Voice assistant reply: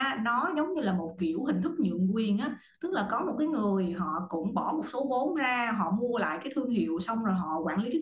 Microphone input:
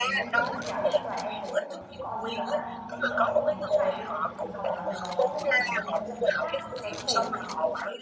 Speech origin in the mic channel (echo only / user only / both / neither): both